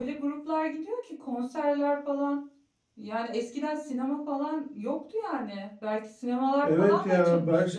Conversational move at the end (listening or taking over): taking over